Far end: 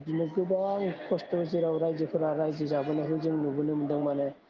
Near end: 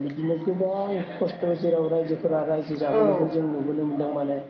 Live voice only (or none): औ